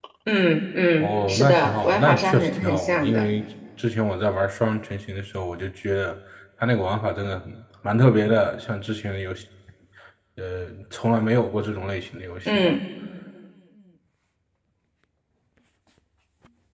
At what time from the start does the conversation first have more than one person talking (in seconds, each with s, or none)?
1.0 s